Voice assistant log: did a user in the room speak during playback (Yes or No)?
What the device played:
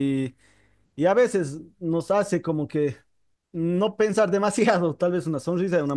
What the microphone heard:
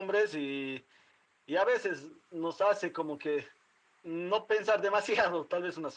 No